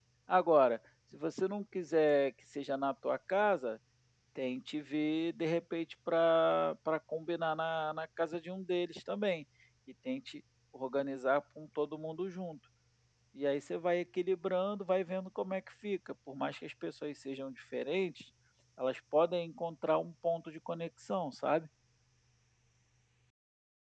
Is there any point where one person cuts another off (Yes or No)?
No